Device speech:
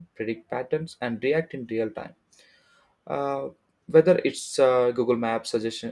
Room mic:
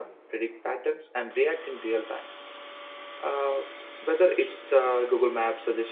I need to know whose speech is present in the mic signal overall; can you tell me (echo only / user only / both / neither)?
echo only